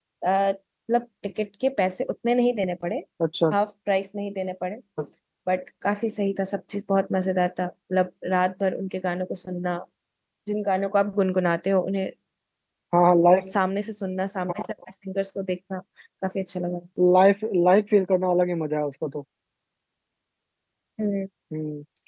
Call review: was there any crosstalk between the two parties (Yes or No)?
No